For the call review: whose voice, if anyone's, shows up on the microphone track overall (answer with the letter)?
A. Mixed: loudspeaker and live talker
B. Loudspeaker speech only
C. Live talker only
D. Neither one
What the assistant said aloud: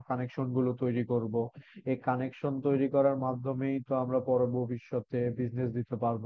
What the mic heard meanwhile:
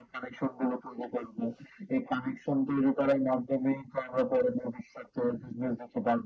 B